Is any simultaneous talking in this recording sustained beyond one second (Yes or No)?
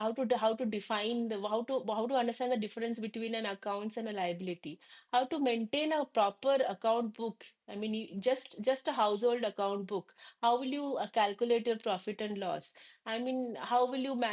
No